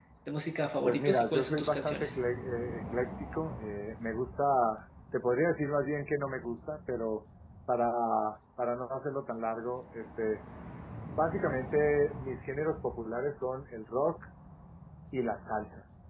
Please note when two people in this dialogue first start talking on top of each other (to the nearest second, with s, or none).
1 s